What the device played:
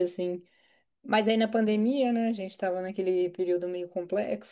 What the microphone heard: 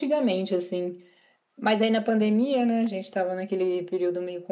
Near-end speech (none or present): none